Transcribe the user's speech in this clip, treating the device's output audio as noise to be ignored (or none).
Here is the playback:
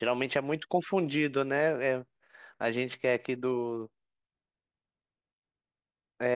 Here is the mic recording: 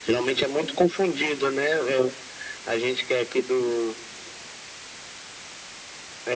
none